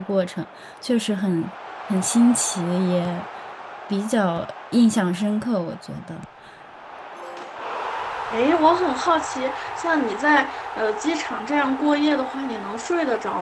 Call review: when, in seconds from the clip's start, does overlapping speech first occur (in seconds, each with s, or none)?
none